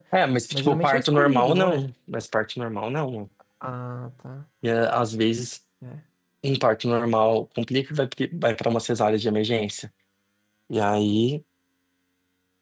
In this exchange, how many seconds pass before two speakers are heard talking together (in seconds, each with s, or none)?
0.5 s